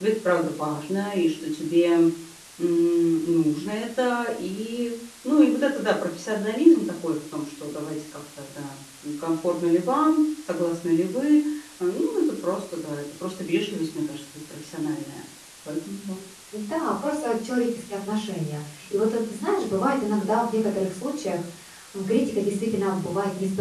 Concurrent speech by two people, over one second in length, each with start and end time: none

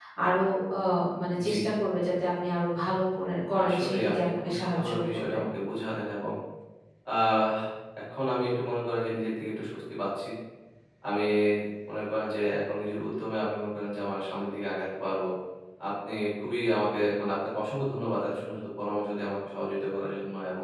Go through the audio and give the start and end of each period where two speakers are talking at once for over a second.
3.6-5.4

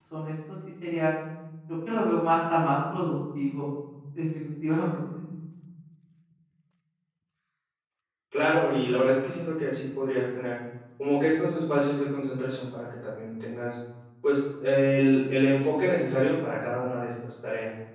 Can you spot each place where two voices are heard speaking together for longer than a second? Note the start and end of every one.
none

